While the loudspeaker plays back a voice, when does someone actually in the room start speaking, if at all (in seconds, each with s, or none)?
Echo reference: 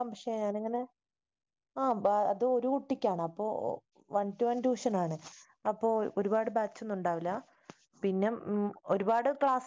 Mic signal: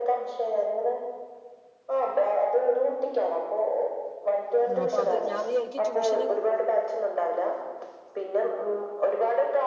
4.7 s